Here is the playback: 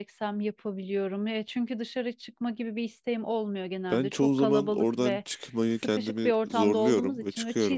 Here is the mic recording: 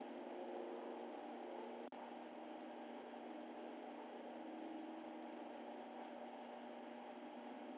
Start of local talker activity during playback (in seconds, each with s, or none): none